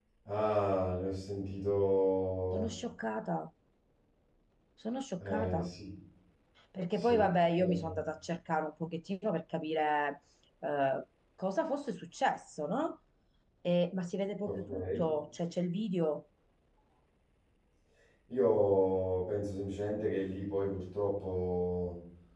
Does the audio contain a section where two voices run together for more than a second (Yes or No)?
No